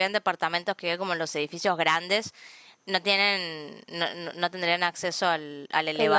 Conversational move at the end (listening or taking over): listening